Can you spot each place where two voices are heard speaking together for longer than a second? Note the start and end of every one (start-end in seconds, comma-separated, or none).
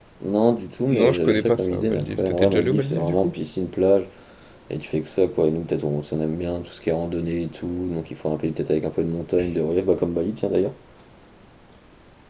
0.9-3.3